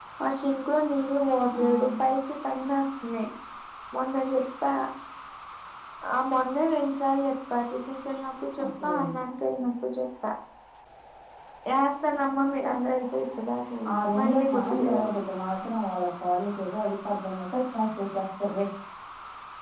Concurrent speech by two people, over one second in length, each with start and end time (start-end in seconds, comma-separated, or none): 13.9-15.2